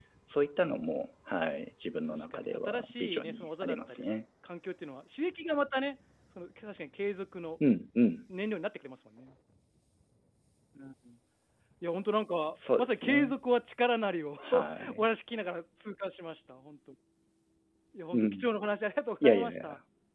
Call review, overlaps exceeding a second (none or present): present